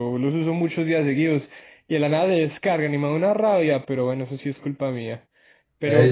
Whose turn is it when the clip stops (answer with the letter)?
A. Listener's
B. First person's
A